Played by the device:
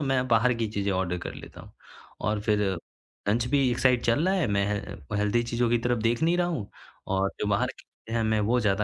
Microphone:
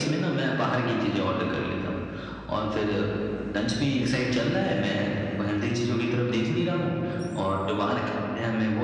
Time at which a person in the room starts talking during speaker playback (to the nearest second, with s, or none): none